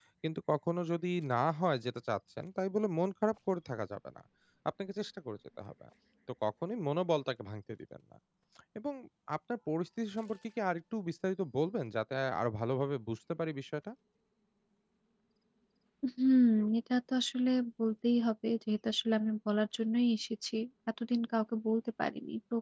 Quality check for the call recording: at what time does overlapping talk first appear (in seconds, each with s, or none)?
none